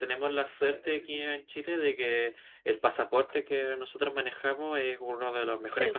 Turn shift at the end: No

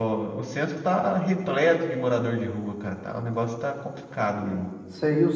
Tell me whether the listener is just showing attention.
No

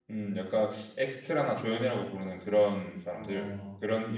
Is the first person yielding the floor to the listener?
Yes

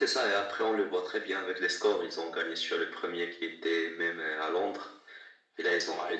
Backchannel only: Yes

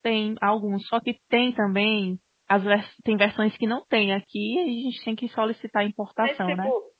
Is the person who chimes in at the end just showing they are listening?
No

